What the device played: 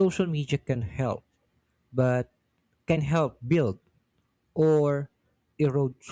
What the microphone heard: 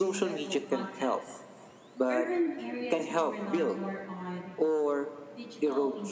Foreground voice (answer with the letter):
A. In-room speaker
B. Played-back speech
B